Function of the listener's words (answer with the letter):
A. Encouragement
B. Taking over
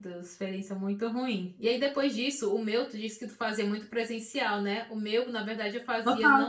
A